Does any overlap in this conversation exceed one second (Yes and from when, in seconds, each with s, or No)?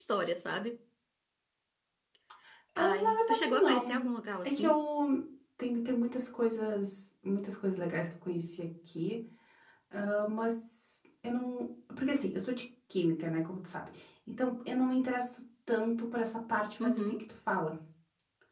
Yes, from 2.8 s